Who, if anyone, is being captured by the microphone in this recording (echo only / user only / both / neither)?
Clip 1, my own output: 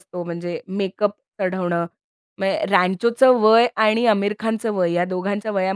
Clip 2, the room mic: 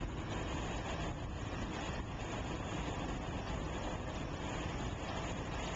neither